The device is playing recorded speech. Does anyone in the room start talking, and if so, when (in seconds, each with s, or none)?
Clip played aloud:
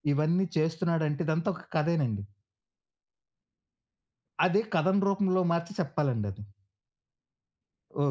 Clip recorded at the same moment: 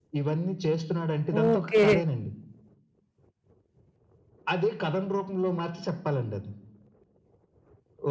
1.4 s